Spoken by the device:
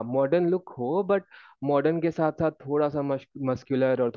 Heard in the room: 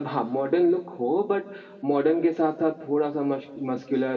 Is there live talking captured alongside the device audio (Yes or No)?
No